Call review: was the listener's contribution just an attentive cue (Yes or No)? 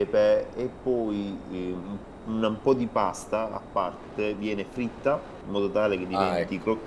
Yes